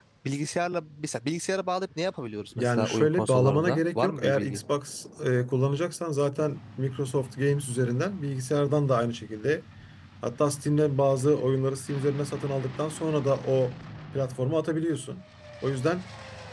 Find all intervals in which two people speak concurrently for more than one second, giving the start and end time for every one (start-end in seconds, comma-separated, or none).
2.6-4.6